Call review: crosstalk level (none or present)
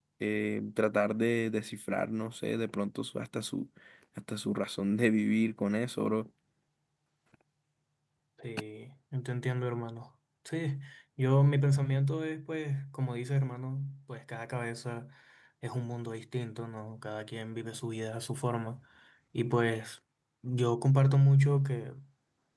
none